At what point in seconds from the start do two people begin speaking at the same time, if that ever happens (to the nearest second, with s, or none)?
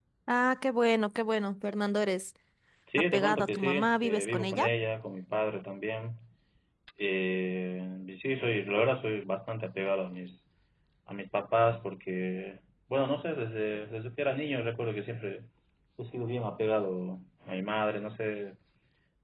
3 s